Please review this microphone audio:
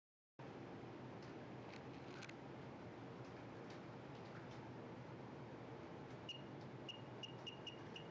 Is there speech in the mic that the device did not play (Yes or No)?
No